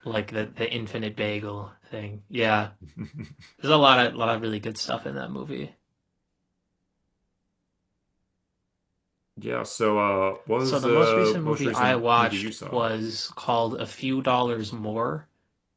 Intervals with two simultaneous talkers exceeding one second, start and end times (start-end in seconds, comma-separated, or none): 10.6-12.9